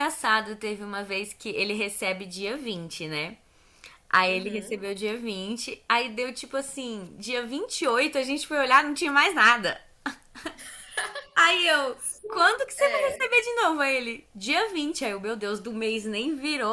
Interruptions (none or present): present